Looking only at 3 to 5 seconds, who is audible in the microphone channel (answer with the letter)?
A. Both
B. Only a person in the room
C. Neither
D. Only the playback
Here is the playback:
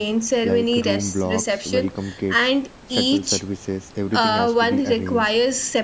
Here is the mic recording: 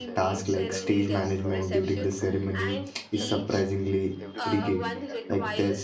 A